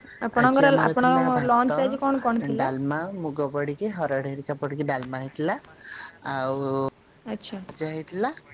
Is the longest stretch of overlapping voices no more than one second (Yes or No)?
No